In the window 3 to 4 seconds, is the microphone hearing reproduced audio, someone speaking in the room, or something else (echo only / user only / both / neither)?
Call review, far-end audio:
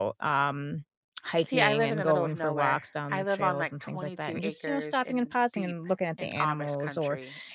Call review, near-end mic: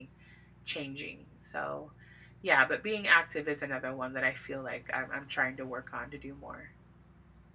user only